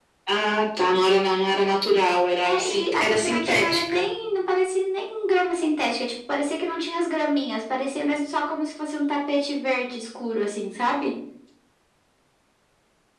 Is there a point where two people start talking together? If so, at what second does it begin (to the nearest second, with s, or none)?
2 s